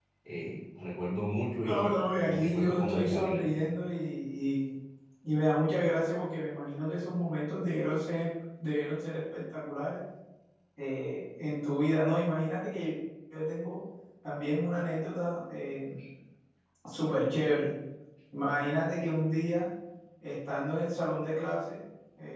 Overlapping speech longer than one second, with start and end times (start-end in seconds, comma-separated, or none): 1.6-3.6